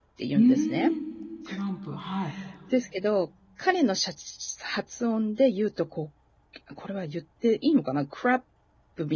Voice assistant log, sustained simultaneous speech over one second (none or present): none